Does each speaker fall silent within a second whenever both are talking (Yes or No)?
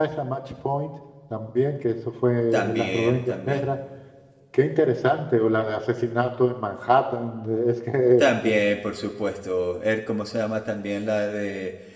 No